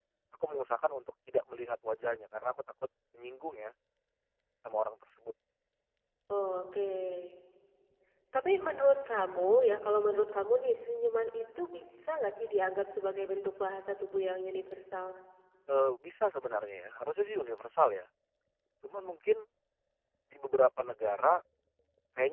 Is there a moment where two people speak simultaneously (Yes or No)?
No